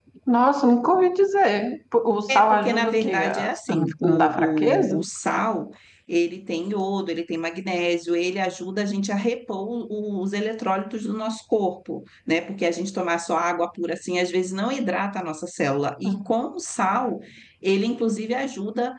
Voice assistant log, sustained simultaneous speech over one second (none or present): present